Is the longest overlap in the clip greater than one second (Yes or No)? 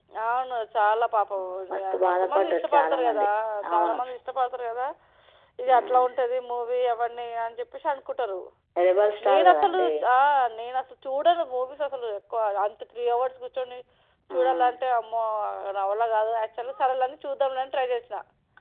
Yes